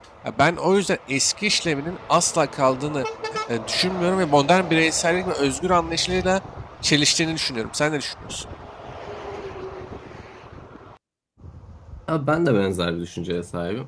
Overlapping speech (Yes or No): No